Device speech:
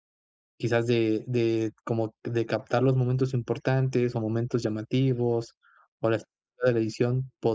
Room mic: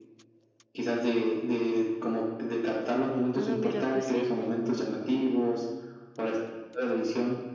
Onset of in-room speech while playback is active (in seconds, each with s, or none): 3.3 s